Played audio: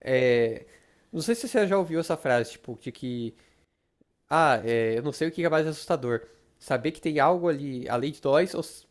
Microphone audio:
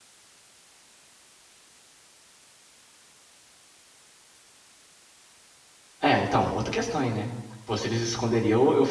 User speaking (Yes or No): Yes